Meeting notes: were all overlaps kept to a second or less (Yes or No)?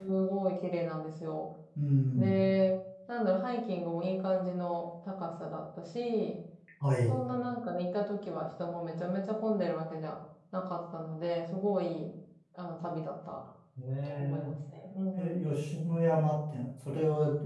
Yes